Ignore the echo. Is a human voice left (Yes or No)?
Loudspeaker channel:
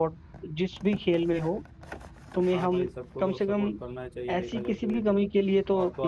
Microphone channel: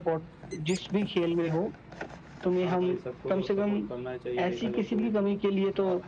No